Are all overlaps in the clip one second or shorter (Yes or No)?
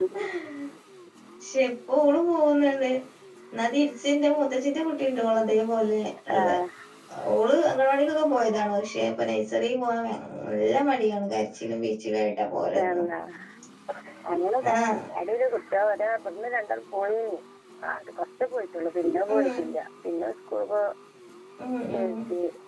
Yes